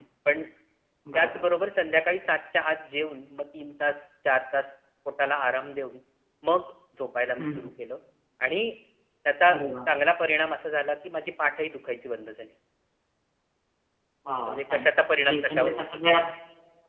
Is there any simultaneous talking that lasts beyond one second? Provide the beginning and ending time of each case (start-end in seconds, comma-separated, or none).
14.5-15.9